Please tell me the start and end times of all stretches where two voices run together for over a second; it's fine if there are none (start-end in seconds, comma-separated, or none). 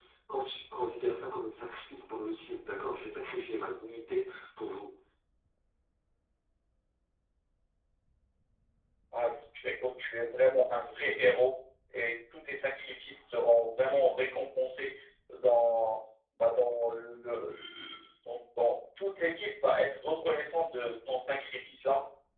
none